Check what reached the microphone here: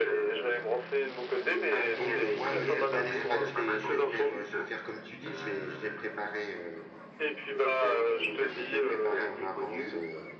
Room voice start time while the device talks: 2 s

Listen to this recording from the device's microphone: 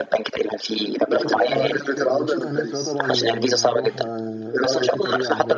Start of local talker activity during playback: 1 s

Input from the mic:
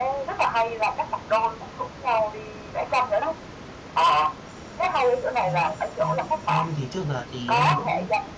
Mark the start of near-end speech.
5 s

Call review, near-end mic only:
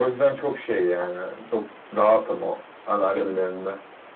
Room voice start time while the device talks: none

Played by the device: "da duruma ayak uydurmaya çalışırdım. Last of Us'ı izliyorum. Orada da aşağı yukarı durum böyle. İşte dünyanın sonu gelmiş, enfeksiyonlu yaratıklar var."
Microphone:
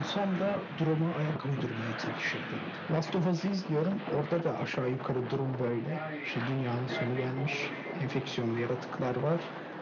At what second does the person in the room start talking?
6 s

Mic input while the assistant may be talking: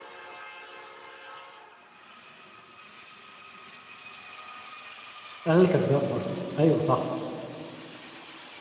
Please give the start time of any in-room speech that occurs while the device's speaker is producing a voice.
5 s

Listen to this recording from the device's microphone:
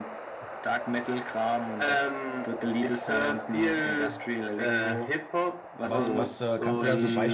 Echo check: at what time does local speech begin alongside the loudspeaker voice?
6 s

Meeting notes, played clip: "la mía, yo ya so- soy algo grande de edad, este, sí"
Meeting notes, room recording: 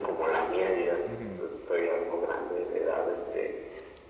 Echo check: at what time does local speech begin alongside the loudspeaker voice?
1 s

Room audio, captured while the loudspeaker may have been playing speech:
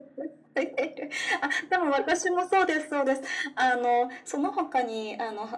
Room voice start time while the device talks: none

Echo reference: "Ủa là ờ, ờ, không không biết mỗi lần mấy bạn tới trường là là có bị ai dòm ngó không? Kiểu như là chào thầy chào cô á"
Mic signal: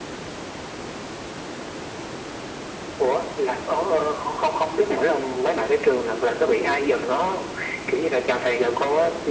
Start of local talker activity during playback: none

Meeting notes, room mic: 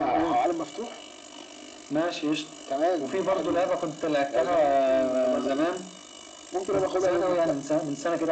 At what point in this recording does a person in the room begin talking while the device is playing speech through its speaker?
none

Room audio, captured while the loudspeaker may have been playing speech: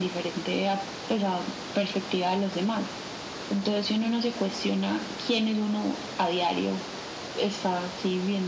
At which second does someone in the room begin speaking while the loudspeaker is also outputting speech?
none

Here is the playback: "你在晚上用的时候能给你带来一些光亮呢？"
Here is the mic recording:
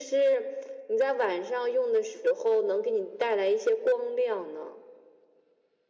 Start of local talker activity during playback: none

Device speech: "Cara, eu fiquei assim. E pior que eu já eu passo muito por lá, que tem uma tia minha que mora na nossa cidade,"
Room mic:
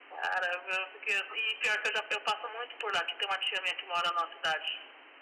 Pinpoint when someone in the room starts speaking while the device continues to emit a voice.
none

